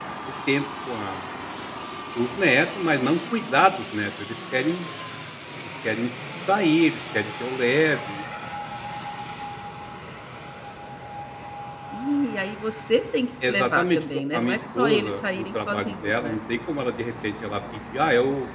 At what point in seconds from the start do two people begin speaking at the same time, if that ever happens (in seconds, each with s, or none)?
13.4 s